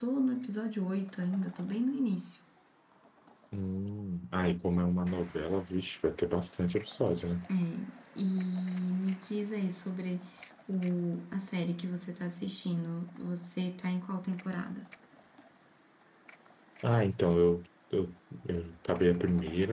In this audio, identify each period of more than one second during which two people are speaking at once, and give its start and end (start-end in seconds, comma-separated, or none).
none